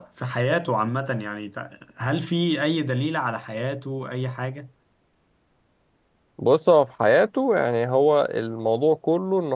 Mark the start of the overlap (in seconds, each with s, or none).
none